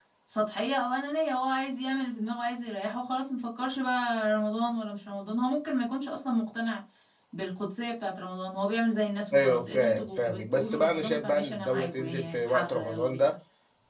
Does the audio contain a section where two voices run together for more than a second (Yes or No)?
Yes